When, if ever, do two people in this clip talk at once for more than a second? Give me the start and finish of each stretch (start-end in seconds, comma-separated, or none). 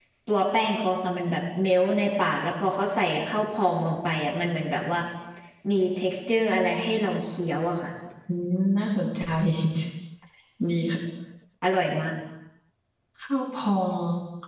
none